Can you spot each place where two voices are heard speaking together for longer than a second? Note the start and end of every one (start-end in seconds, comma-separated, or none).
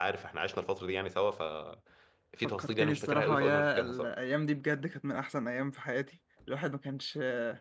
2.6-4.1